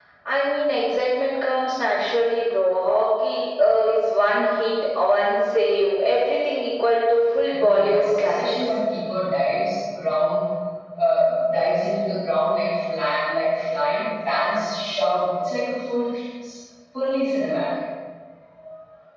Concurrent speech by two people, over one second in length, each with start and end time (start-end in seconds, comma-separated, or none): 7.5-8.8